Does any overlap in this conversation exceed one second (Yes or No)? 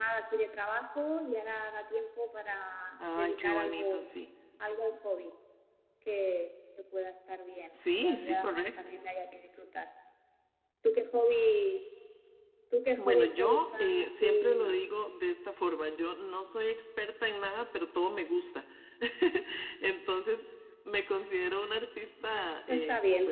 Yes